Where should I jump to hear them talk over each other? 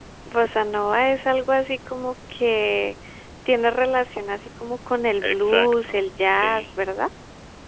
5.2 s

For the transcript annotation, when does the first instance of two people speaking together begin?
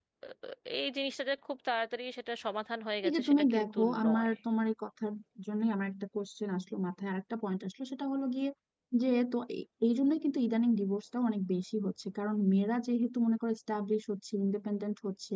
3.0 s

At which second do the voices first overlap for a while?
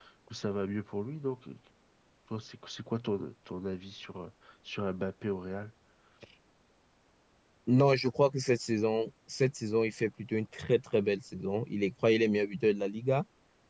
none

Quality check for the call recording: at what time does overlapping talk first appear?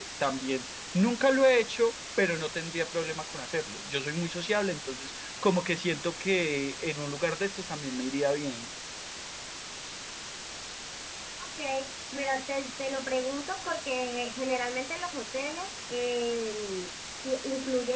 none

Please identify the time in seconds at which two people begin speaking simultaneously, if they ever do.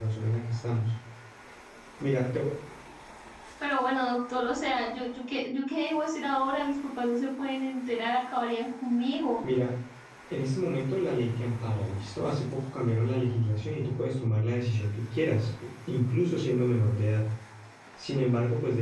none

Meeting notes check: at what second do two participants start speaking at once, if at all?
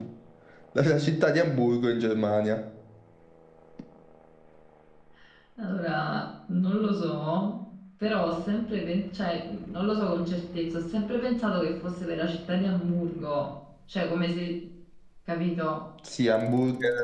none

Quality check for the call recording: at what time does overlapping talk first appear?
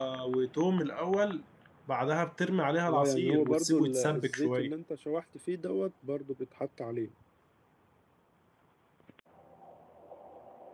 2.9 s

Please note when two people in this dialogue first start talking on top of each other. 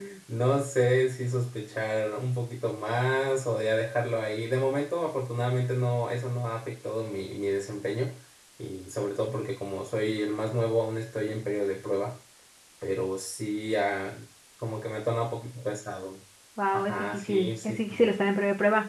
16.7 s

